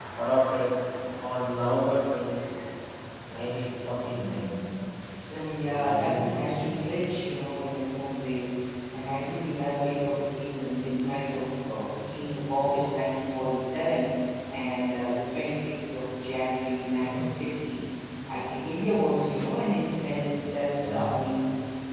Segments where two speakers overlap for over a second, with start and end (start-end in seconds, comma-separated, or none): 5.3-6.8